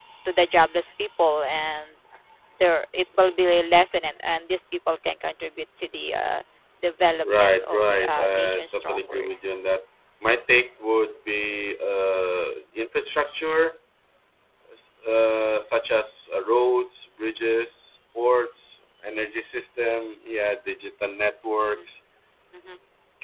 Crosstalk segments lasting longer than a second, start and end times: 7.2-9.3

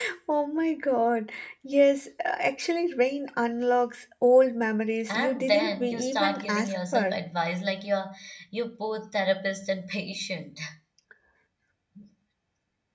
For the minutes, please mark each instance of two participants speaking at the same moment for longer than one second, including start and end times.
5.1-7.2

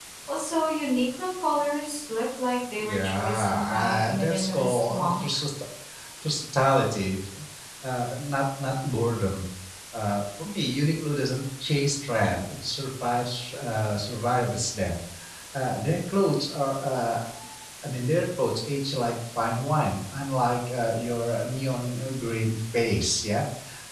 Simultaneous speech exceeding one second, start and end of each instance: 2.8-5.2

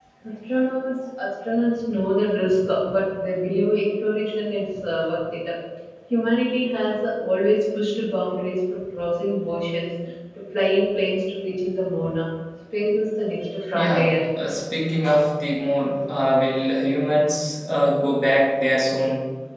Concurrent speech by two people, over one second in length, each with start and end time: none

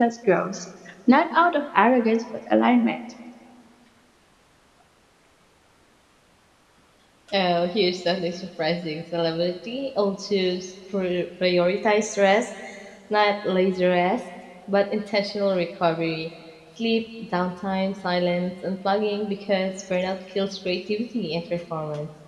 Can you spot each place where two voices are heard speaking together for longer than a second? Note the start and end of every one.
none

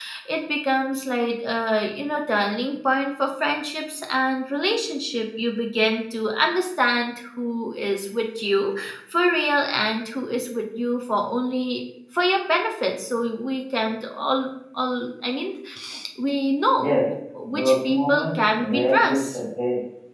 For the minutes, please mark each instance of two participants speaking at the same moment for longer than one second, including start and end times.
17.5-19.4

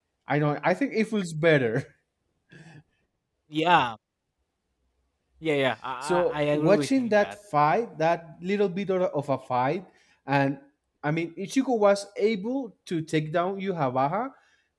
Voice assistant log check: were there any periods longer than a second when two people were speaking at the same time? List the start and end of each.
6.0-7.3

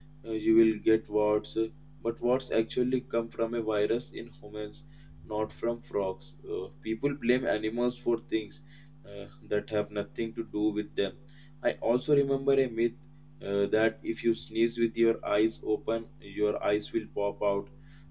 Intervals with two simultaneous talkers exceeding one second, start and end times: none

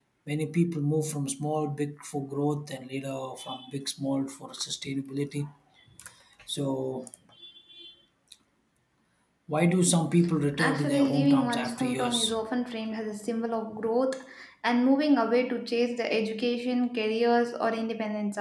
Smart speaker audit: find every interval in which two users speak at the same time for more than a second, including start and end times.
10.6-12.4

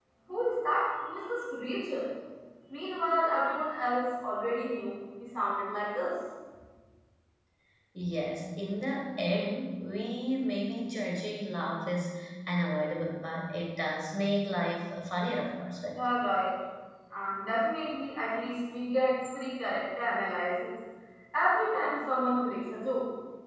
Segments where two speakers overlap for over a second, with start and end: none

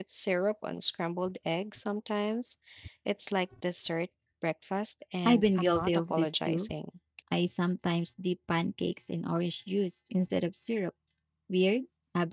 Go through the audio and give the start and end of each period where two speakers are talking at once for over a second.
5.2-6.7

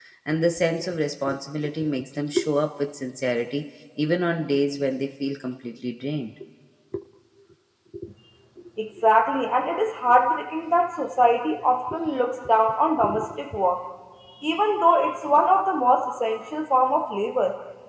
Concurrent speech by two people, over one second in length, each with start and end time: none

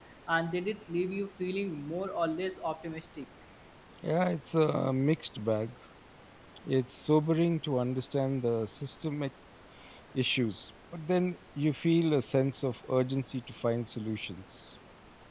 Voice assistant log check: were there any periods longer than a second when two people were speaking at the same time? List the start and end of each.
none

